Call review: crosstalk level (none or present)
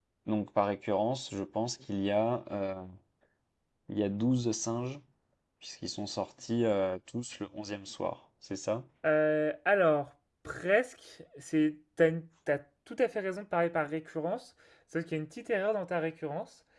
none